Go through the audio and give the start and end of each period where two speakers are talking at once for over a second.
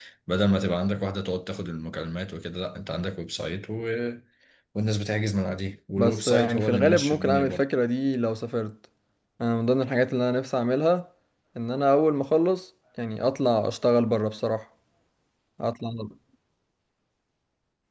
6.0-7.6

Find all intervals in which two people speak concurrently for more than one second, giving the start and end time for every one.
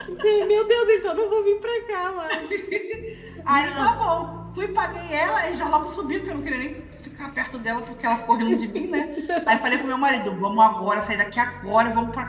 none

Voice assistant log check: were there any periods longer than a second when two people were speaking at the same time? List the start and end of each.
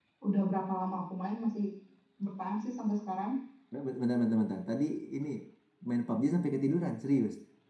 none

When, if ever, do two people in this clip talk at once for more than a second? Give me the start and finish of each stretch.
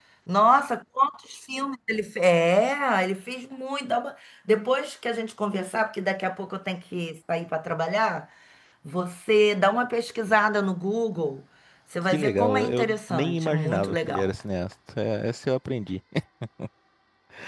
12.1-14.3

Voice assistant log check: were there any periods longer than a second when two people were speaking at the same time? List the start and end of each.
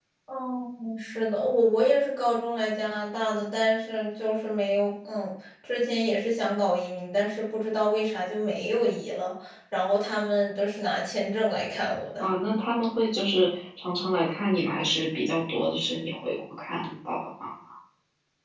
none

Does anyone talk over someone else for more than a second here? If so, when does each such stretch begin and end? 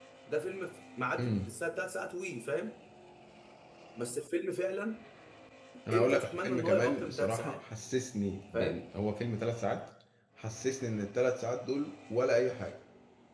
5.9-7.6

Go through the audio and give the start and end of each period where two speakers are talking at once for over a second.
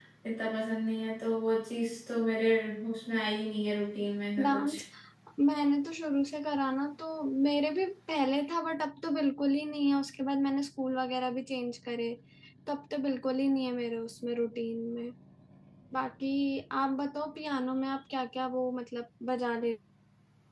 none

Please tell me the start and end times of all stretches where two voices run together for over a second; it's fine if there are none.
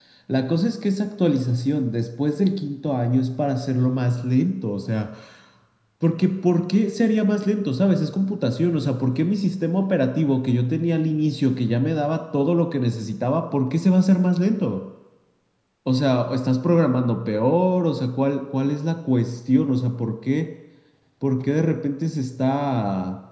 none

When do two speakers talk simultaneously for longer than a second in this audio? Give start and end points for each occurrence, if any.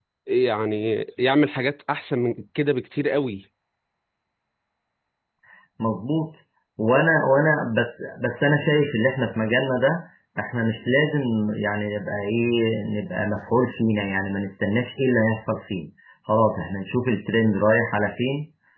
none

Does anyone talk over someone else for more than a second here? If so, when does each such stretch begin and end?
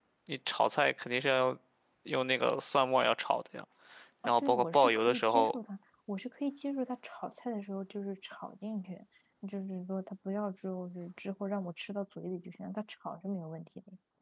4.3-5.6

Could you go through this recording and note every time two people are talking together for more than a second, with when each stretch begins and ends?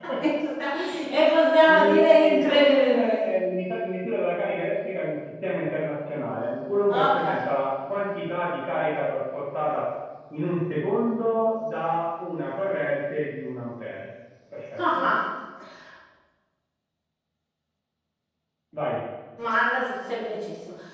1.7-3.2

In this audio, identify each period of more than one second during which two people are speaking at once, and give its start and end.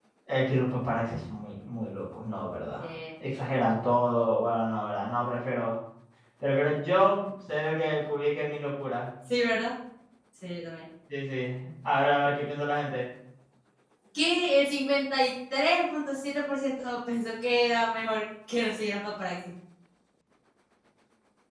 none

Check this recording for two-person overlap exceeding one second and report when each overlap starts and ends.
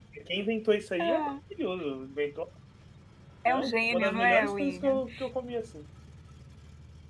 3.5-5.0

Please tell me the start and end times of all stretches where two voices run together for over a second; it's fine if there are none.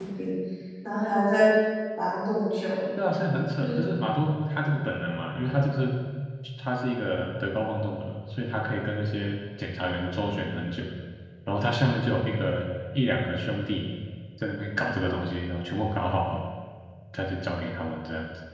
none

